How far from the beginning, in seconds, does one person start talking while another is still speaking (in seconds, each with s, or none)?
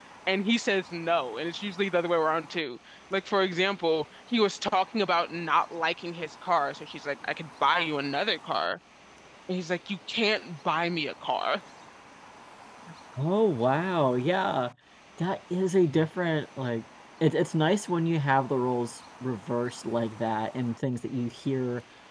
none